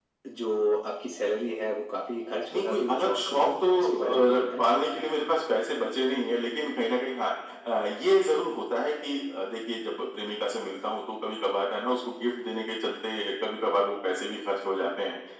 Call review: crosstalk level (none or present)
present